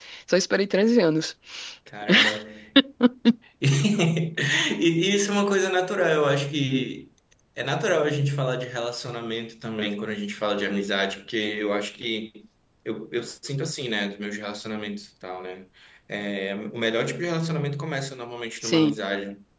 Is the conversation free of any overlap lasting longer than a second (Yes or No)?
Yes